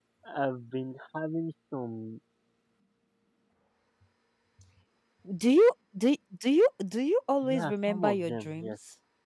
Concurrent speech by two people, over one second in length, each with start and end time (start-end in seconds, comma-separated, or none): 7.4-8.7